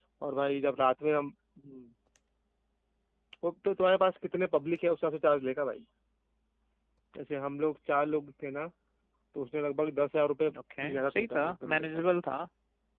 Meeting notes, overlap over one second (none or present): present